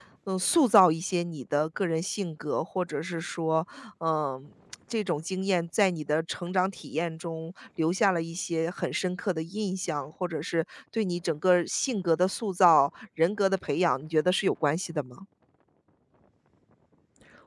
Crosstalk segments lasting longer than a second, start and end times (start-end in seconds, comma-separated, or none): none